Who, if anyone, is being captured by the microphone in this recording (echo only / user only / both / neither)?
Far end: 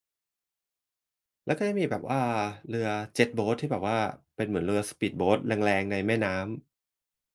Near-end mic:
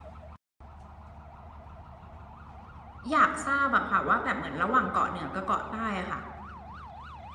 user only